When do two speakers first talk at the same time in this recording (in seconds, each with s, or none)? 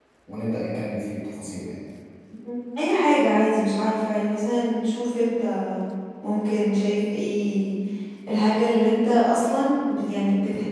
none